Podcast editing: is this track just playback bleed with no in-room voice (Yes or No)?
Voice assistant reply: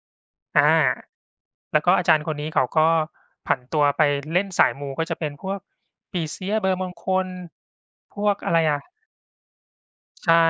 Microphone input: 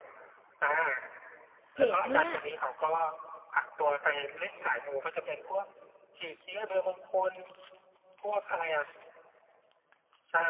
No